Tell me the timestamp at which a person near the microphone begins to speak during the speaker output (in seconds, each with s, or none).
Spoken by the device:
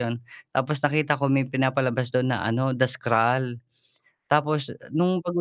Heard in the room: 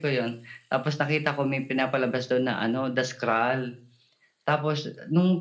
none